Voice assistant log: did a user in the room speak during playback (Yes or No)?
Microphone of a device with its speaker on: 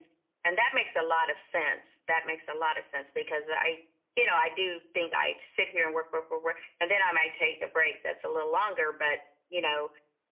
No